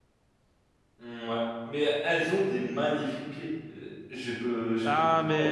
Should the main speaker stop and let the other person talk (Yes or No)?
Yes